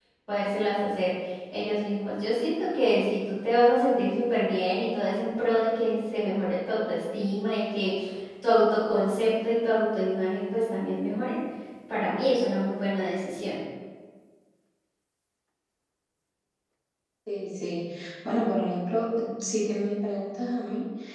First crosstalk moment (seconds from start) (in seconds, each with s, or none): none